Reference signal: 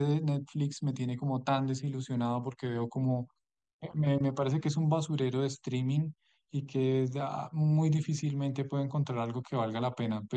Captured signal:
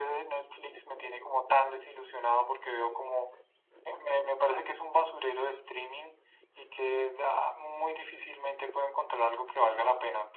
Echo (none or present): present